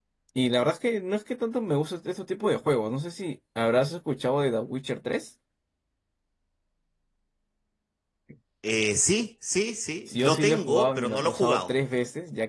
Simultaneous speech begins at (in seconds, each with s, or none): 10.1 s